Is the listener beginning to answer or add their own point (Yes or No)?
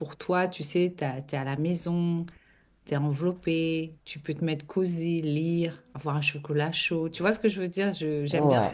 No